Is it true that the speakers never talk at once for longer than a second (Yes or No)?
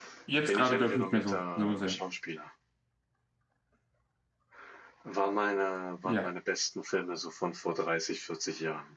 No